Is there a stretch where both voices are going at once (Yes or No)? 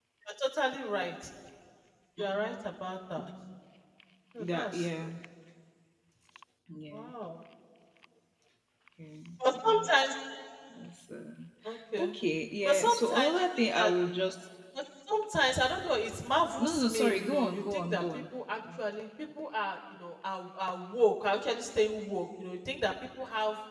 Yes